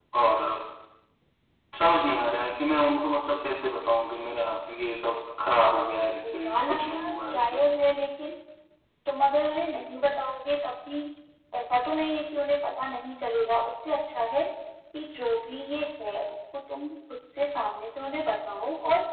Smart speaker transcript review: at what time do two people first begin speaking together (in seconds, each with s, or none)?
6.2 s